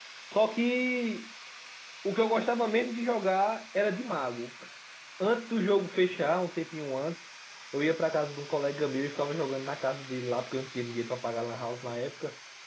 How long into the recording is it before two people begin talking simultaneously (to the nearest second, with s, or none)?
none